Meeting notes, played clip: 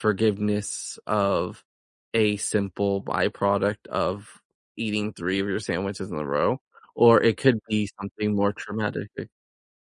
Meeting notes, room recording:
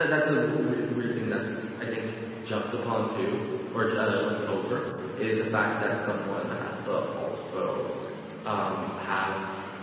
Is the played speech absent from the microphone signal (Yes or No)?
Yes